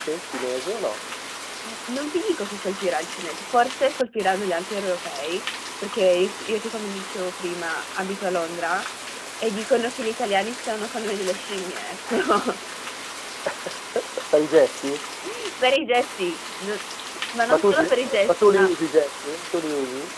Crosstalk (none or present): present